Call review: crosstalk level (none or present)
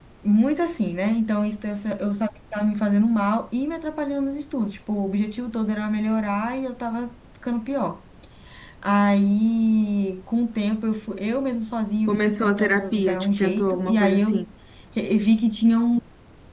present